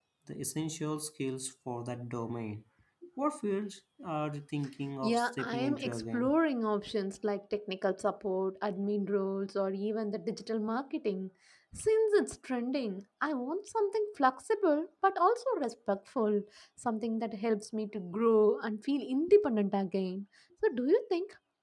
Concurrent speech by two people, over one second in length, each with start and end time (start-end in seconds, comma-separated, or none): 5.0-6.4